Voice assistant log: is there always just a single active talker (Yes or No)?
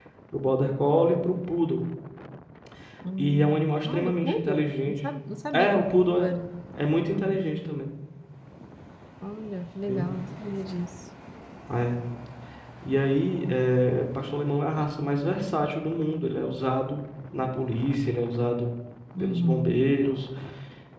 No